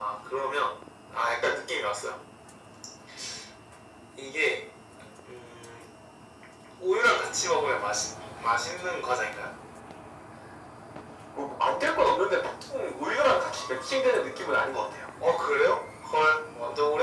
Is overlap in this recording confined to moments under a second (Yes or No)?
Yes